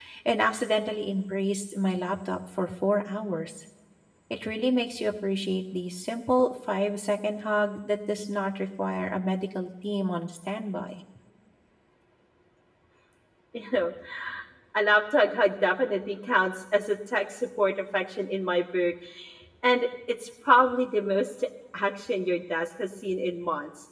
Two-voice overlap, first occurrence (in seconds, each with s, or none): none